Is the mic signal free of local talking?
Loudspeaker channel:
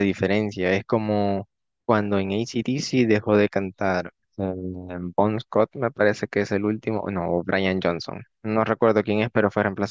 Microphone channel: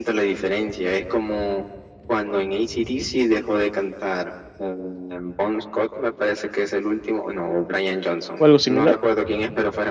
No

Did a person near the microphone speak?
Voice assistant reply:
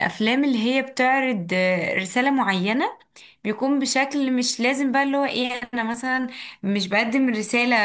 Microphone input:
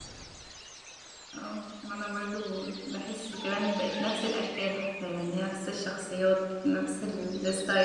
Yes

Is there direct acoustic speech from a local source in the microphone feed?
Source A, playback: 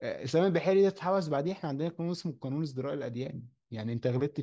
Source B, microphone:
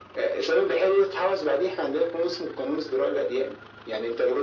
No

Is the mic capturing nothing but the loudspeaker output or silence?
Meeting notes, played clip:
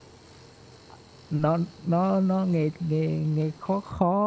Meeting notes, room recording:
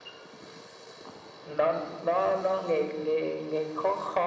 Yes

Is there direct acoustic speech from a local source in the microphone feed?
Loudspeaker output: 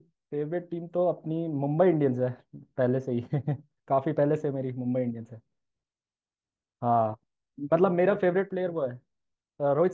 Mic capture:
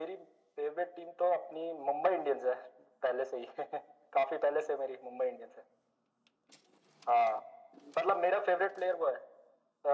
No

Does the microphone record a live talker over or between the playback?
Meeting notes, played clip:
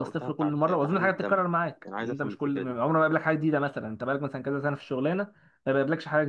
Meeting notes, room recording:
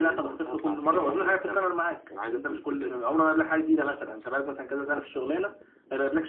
No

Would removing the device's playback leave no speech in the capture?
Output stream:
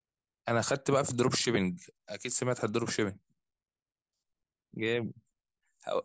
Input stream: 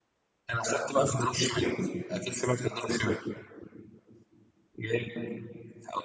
Yes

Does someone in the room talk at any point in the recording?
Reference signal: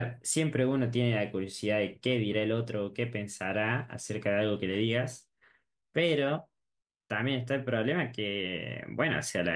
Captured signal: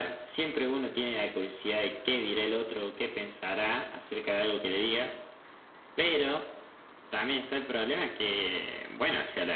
No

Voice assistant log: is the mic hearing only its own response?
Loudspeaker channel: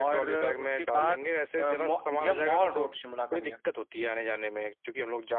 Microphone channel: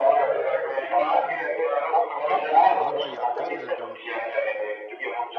No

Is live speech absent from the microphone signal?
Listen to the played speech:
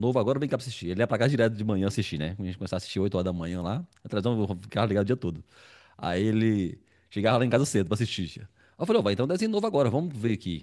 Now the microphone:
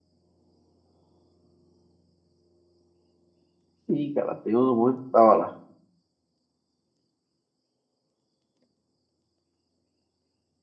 No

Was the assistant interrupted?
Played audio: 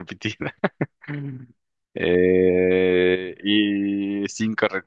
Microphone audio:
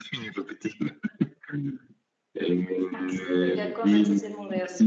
Yes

